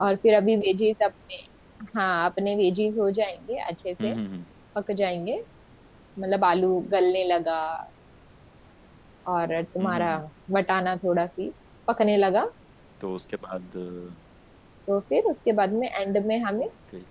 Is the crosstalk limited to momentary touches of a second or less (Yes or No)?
Yes